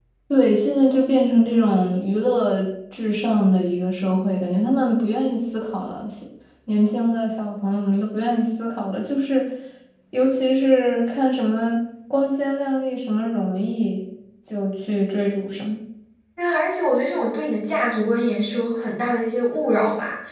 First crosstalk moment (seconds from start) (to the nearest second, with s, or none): none